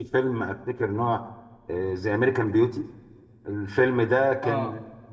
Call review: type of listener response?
listening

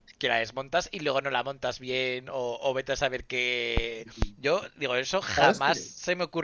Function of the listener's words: listening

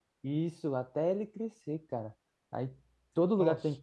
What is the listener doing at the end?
listening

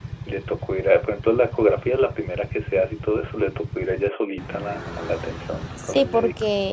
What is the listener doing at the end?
taking over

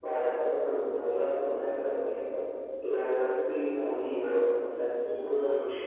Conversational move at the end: taking over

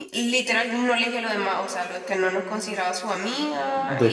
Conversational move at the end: taking over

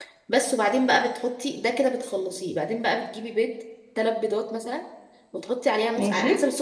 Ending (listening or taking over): listening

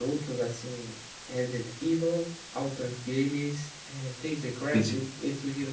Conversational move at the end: listening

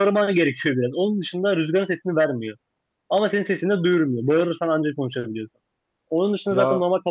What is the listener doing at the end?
listening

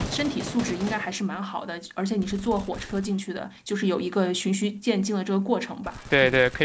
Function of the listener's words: taking over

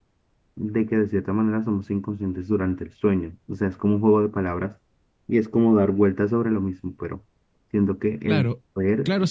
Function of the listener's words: taking over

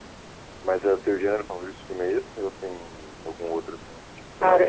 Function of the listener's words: taking over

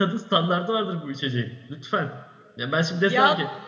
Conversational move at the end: listening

